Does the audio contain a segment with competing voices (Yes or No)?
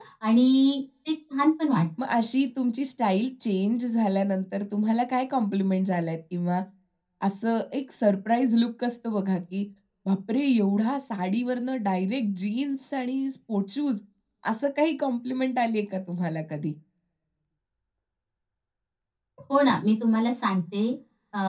No